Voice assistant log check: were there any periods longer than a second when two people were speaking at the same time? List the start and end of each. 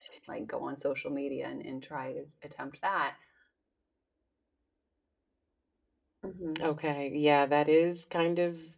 none

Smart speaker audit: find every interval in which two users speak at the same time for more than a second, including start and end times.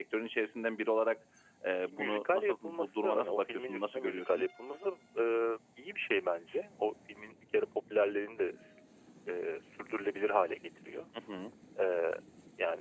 1.8-4.5

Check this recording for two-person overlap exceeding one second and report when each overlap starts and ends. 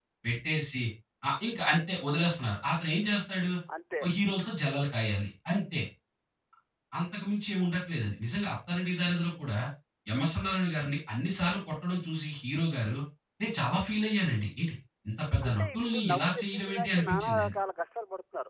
15.4-17.6

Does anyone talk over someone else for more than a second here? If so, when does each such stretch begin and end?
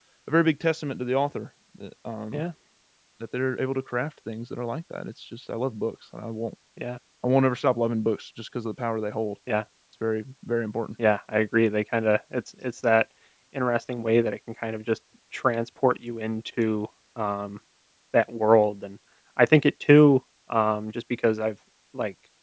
none

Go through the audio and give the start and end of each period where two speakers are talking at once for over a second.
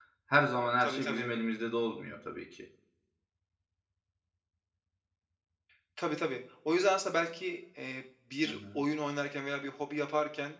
none

